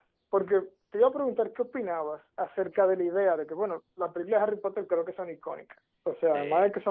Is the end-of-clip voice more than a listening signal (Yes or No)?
No